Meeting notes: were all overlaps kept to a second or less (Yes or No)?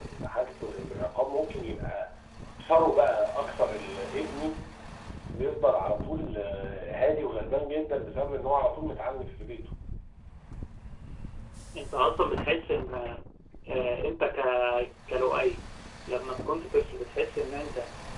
Yes